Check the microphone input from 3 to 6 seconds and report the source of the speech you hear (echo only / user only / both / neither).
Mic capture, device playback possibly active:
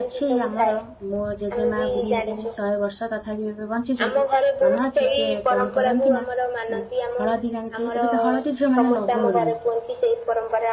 both